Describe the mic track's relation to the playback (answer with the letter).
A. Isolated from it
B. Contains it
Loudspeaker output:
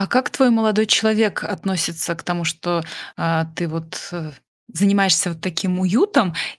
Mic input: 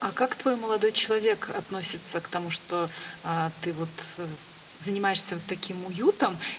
B